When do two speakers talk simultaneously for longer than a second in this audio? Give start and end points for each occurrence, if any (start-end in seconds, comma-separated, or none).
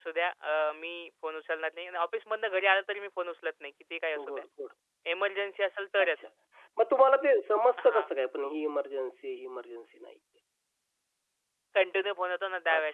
none